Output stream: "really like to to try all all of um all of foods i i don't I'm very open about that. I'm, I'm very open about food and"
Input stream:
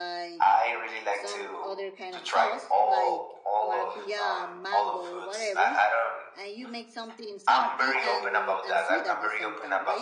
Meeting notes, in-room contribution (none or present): present